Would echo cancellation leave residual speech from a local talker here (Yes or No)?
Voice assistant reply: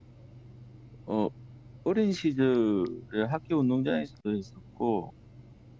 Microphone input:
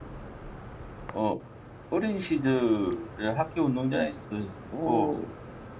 Yes